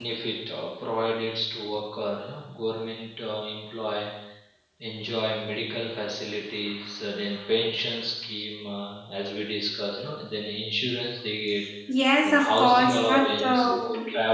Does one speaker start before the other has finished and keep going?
Yes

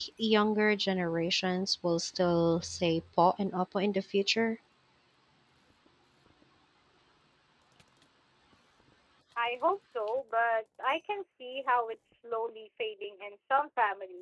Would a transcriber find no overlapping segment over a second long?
Yes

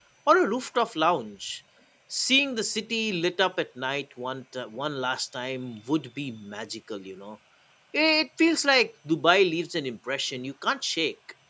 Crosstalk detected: No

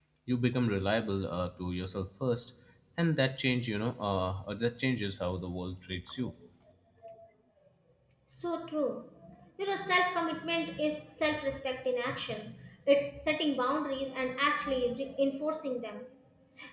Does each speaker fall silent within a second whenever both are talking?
Yes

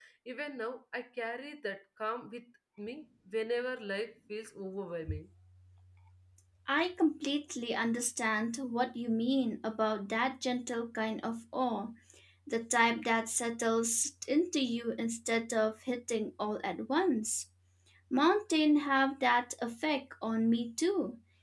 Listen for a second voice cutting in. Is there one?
No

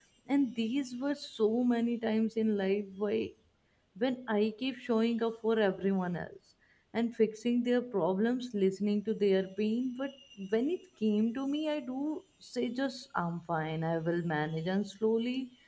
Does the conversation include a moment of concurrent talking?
No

